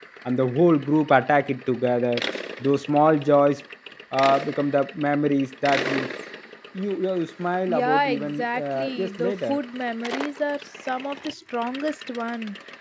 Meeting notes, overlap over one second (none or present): present